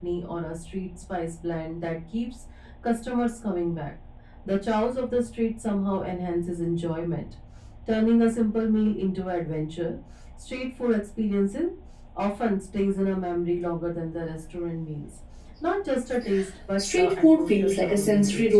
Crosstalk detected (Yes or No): Yes